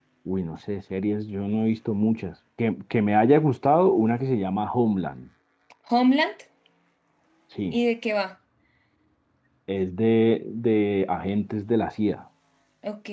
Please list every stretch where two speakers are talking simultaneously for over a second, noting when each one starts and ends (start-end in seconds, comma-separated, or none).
none